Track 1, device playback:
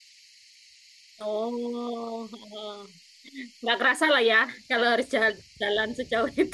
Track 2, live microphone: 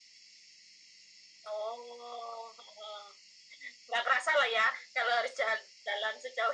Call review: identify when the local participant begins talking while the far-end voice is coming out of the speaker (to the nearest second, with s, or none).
none